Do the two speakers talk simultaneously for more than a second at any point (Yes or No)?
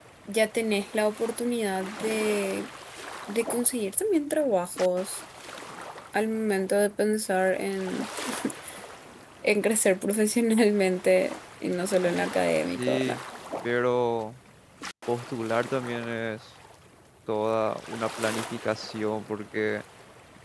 No